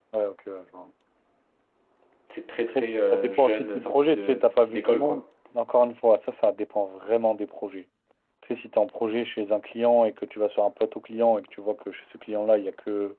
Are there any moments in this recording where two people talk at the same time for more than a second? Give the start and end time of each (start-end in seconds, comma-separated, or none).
2.8-5.2